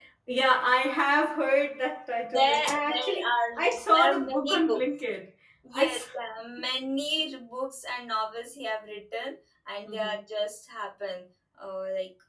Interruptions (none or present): present